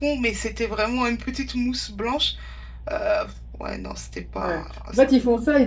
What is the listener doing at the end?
taking over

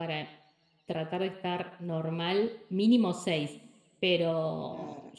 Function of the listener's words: listening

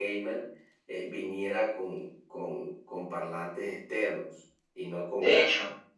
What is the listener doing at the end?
taking over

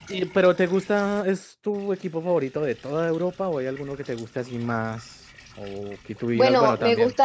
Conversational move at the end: taking over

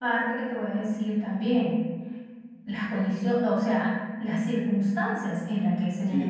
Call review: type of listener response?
taking over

